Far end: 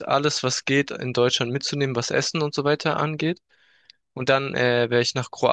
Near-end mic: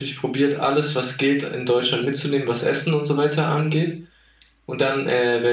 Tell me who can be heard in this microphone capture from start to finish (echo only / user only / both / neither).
echo only